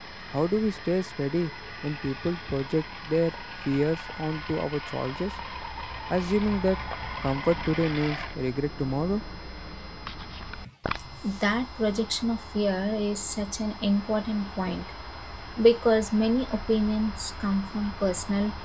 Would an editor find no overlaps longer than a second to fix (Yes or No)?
Yes